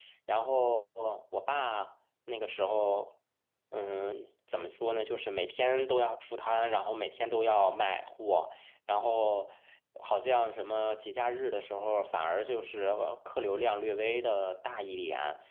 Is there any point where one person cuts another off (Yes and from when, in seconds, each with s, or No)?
No